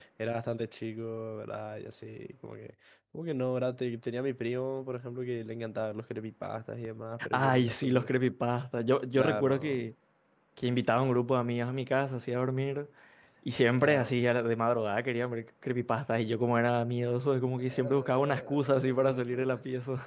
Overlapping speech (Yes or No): Yes